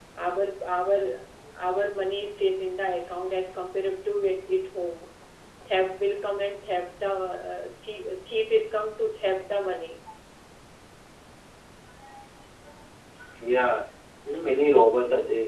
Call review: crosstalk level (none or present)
none